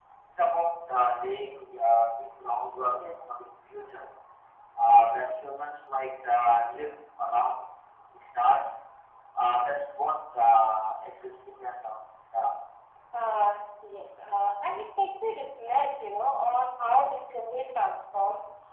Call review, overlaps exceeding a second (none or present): none